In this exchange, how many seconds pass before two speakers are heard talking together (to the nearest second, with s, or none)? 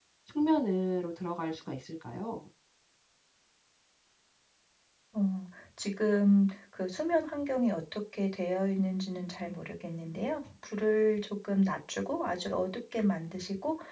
none